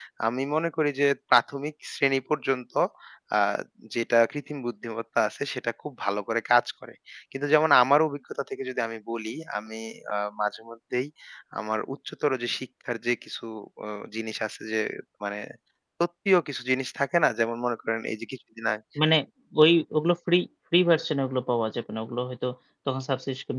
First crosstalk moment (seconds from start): none

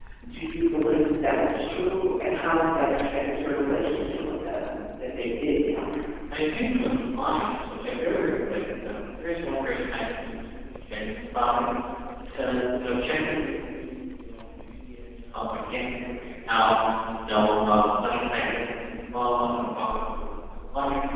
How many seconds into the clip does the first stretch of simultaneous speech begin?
none

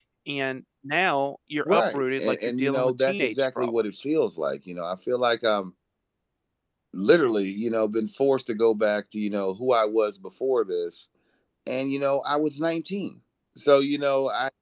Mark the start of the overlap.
1.6 s

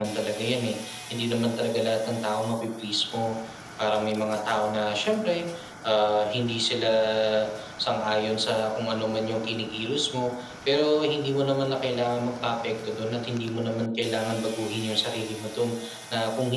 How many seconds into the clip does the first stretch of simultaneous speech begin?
none

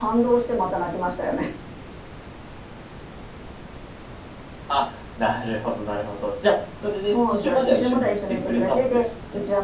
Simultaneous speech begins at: 7.1 s

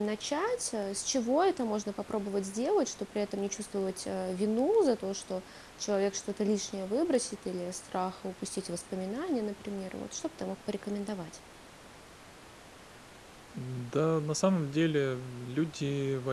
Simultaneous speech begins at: none

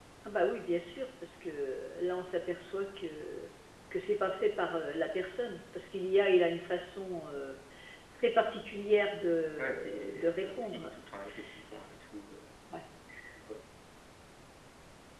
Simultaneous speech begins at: 9.6 s

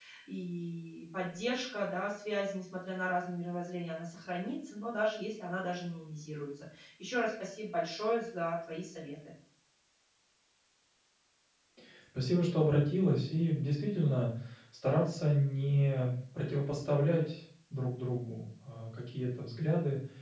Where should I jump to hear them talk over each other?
none

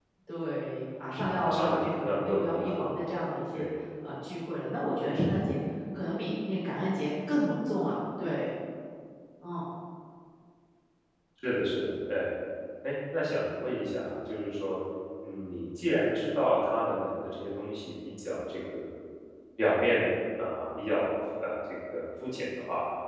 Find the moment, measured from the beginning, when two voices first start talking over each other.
1.4 s

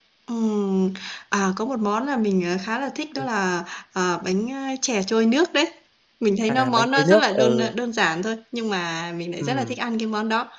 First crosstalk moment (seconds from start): 6.5 s

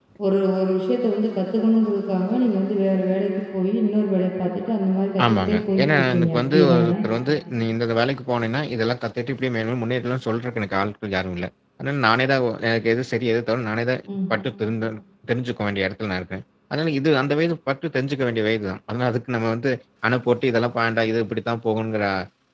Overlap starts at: 5.2 s

